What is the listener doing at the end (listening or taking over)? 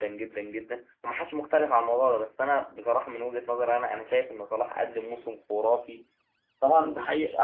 listening